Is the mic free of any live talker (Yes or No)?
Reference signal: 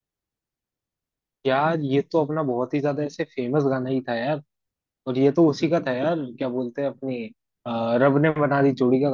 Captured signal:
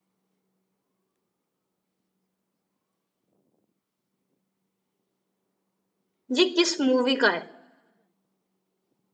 No